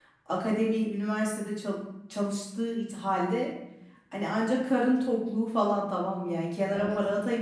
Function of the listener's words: listening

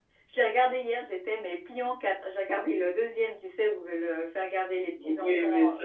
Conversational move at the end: taking over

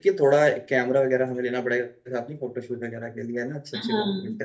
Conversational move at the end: taking over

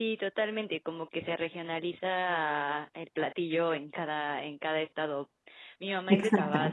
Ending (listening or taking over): listening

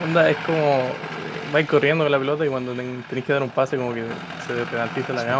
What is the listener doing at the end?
taking over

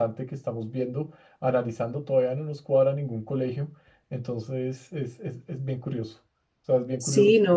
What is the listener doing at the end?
taking over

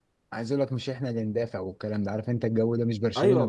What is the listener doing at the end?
taking over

